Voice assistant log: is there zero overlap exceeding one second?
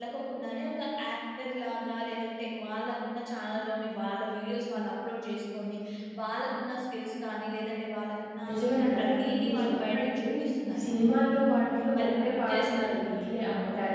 No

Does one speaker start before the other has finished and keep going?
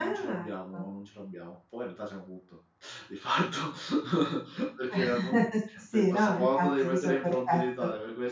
Yes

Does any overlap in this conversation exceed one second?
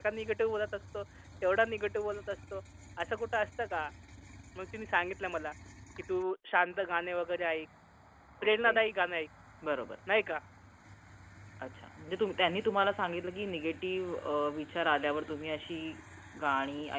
No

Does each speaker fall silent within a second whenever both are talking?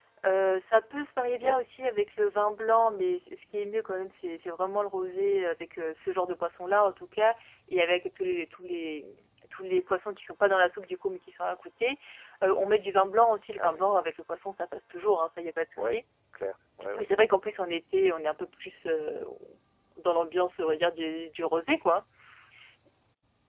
Yes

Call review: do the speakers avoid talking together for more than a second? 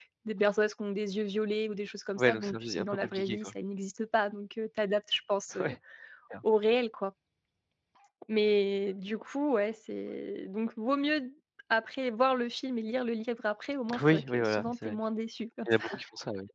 No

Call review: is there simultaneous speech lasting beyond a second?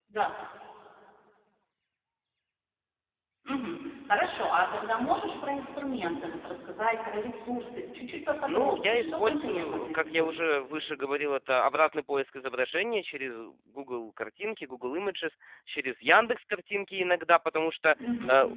Yes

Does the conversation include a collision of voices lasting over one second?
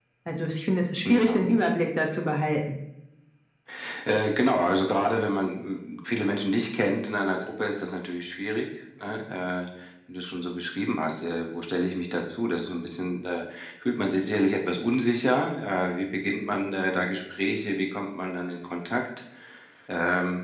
No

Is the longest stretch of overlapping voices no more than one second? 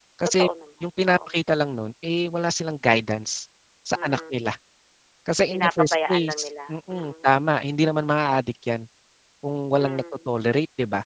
No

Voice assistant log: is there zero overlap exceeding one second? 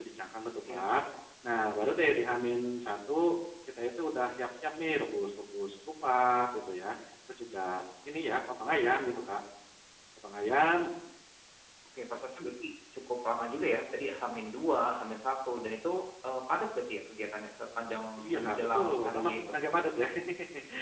No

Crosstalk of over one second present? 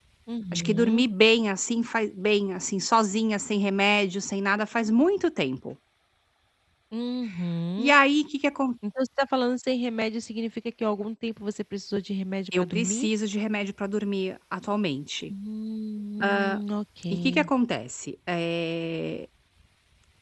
No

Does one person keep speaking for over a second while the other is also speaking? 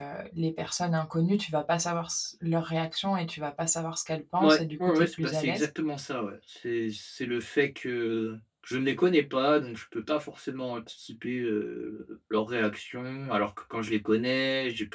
Yes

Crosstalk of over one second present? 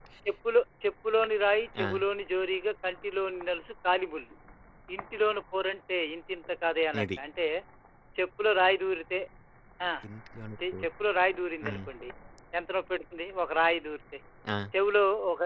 No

